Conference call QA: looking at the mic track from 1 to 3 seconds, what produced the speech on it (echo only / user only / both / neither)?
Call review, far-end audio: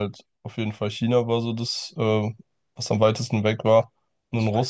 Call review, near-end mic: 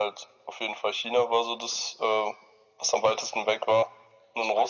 echo only